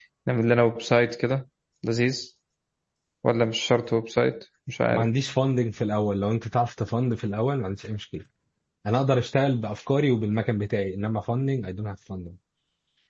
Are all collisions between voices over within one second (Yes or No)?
Yes